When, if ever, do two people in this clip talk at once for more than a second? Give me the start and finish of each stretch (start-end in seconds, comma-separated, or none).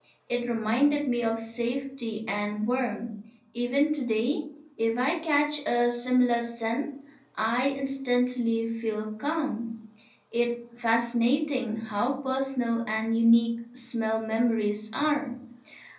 none